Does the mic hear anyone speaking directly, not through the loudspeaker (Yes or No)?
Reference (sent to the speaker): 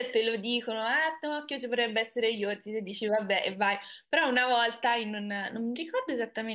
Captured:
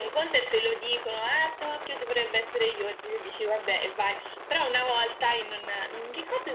No